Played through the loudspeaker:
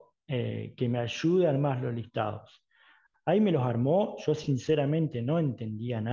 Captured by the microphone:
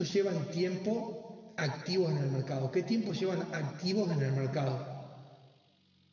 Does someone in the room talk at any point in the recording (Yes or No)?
Yes